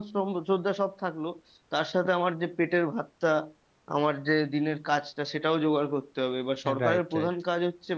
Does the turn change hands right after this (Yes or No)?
No